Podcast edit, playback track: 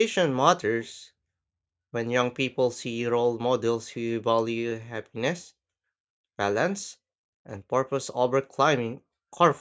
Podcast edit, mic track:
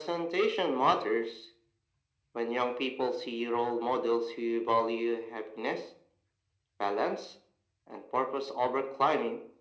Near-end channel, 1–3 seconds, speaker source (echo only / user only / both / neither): echo only